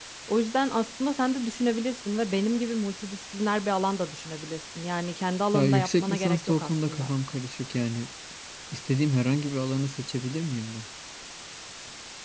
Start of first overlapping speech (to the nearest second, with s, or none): 6 s